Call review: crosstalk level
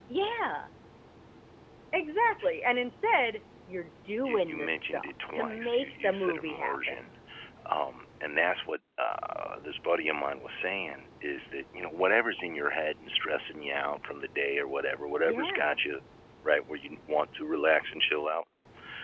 present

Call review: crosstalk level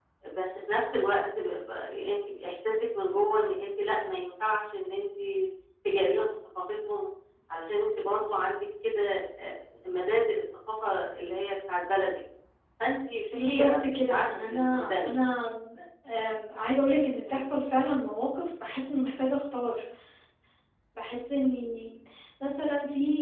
present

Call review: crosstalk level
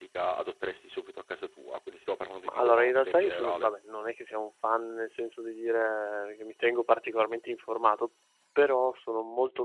present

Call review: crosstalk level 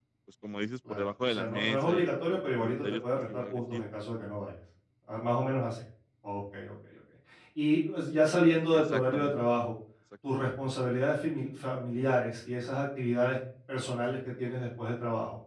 present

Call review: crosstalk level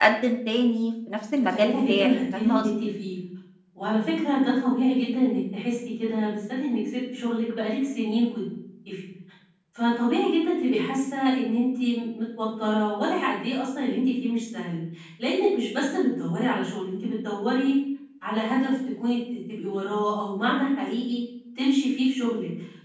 present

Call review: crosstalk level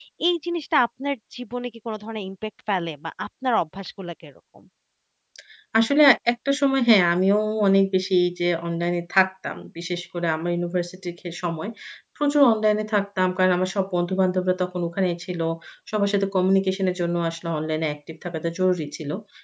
none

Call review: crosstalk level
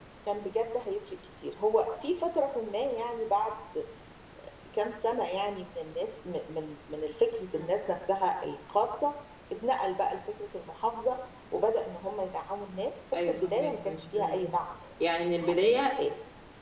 present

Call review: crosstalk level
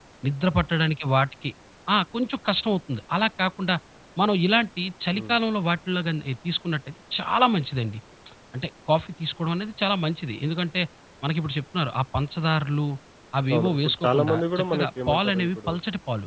present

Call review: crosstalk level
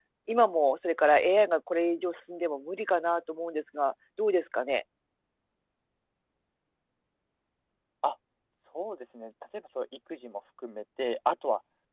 none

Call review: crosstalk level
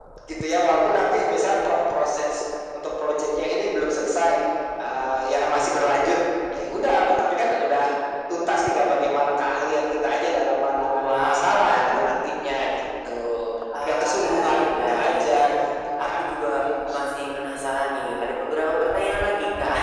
present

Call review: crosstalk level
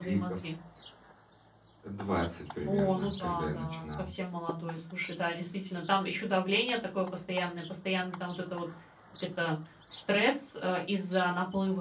present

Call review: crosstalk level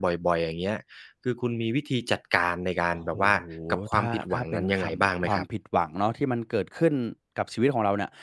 present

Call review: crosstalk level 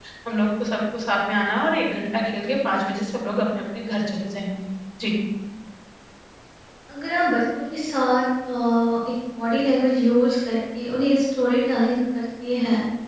none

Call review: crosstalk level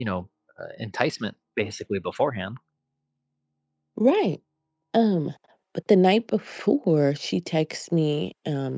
none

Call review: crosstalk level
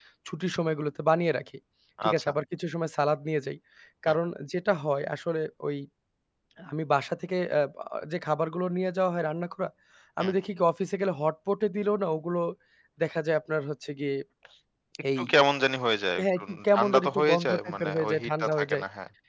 present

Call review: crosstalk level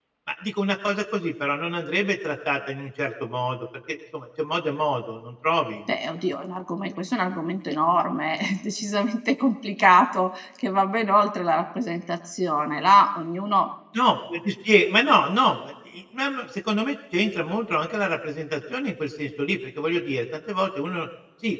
none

